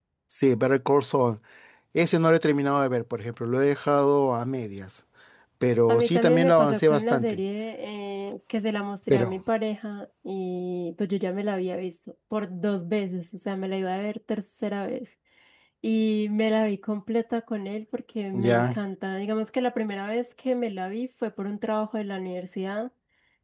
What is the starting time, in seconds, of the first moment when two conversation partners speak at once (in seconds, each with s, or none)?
5.9 s